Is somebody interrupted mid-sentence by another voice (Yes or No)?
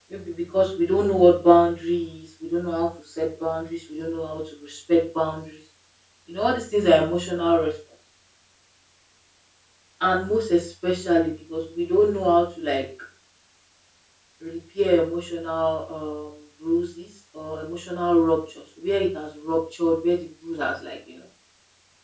No